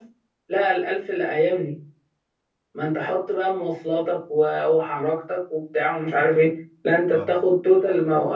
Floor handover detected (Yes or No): No